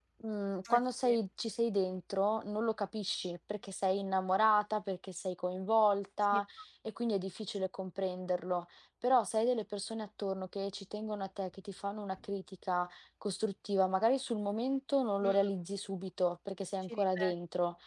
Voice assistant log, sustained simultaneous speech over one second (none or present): none